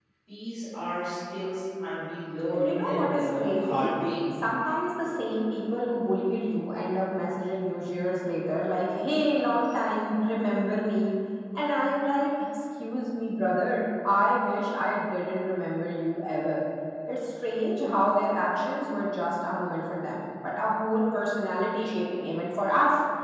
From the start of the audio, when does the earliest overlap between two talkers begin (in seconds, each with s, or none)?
2.5 s